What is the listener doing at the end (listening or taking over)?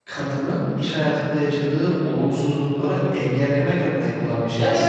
taking over